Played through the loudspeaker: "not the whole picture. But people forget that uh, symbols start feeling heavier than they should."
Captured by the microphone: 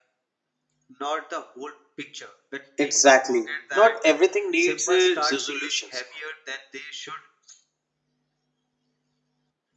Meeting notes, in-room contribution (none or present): present